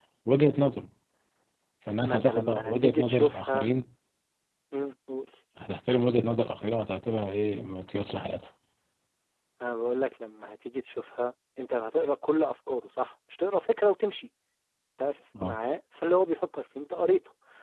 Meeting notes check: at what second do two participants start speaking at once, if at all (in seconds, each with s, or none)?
2.0 s